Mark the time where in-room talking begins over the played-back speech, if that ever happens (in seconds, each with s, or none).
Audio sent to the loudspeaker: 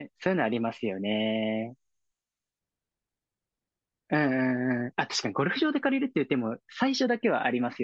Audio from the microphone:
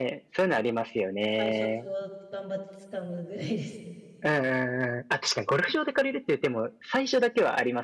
1.3 s